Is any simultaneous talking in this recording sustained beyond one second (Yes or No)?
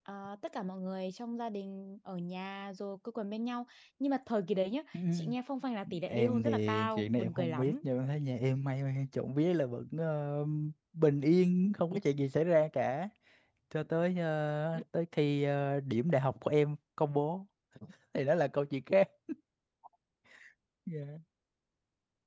Yes